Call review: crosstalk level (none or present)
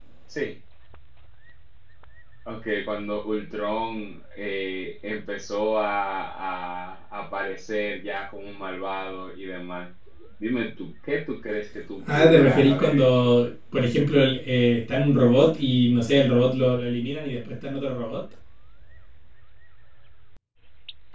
present